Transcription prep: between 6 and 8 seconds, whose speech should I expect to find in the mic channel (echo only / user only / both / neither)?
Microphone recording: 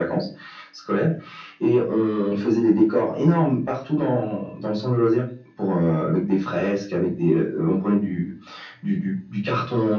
echo only